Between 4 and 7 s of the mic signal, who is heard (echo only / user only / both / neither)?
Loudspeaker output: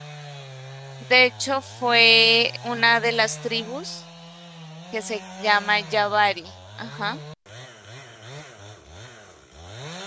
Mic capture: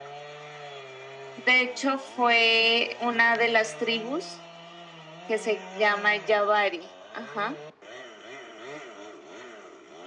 echo only